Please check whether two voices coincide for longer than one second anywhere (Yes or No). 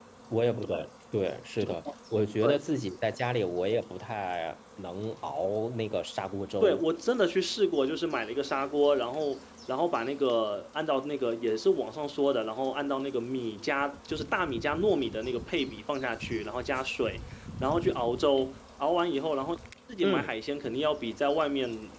No